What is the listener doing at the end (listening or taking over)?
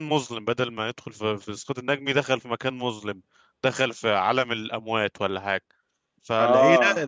listening